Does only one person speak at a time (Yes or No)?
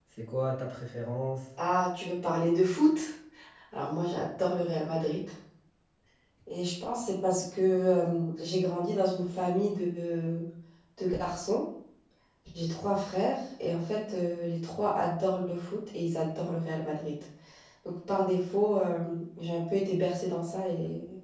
Yes